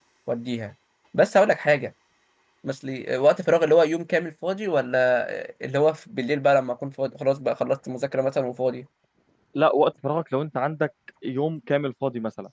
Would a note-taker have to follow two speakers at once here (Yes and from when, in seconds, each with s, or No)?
No